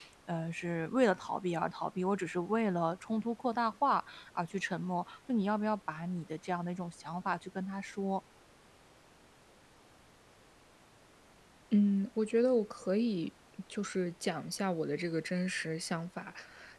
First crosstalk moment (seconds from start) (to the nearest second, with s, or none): none